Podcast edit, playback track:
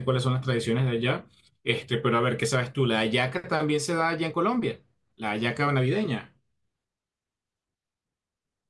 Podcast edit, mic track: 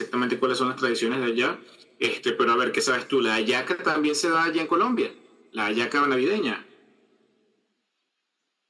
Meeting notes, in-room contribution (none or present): none